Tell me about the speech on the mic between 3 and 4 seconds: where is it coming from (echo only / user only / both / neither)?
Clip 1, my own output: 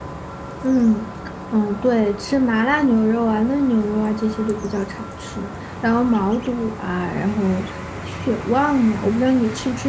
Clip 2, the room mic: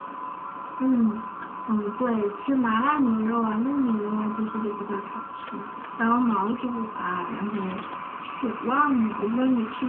echo only